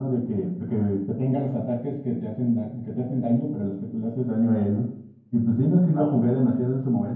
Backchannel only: Yes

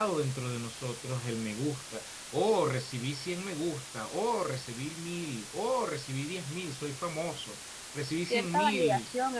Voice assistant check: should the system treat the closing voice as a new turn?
Yes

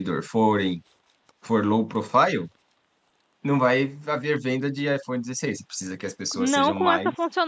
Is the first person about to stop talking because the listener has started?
Yes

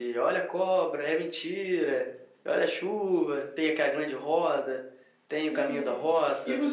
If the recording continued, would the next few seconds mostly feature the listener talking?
Yes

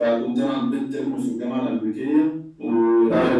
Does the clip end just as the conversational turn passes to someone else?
No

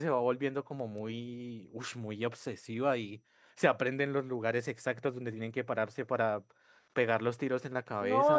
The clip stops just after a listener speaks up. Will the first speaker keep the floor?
No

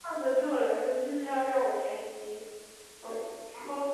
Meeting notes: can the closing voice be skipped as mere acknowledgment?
No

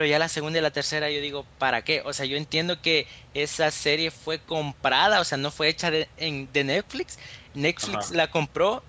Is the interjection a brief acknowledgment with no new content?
Yes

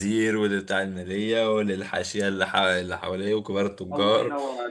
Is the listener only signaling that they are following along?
No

